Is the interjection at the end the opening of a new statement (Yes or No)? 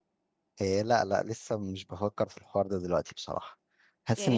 Yes